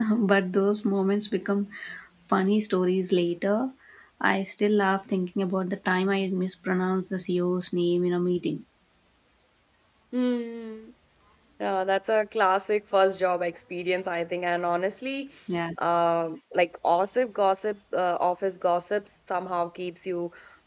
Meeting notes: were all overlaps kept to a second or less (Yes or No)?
Yes